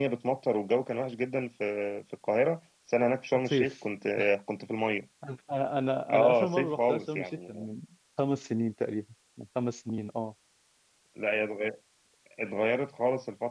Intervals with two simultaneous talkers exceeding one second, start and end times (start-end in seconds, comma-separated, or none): 6.1-7.4